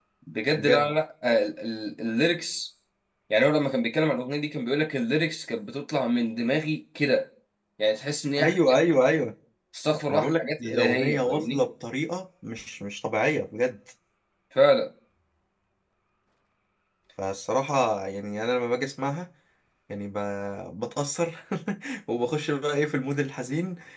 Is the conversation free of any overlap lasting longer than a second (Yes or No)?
No